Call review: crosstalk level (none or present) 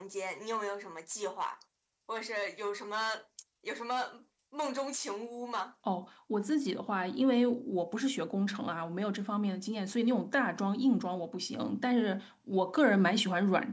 none